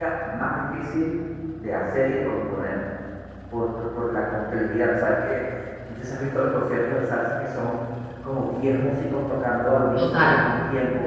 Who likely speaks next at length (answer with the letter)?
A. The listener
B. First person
B